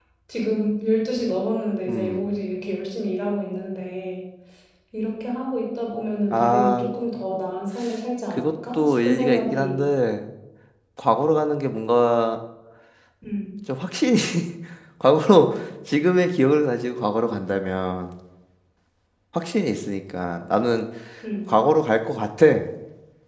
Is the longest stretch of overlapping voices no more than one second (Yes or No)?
No